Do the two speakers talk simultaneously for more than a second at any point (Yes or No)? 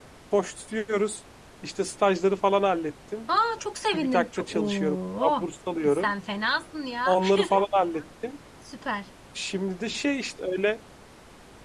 Yes